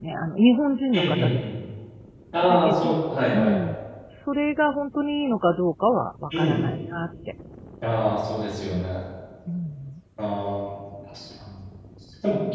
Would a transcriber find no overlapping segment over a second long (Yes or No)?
Yes